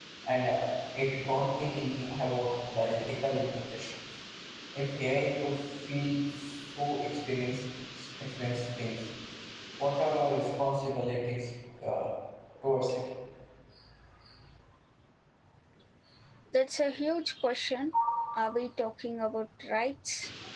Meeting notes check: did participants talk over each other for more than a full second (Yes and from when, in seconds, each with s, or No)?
No